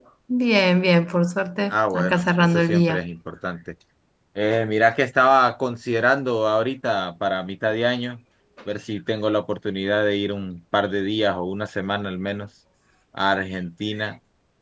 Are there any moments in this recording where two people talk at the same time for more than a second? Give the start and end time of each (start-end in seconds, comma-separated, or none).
1.7-3.0